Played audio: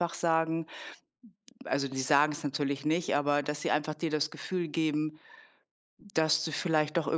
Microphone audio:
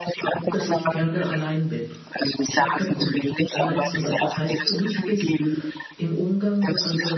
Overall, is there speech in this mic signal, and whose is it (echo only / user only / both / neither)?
both